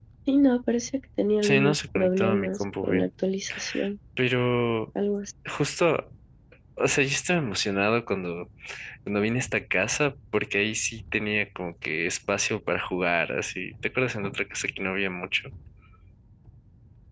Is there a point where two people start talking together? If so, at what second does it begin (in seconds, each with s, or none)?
1.4 s